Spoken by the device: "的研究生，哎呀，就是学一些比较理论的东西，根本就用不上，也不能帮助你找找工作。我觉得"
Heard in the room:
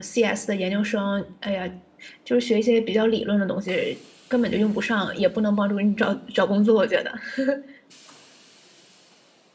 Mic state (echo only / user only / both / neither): echo only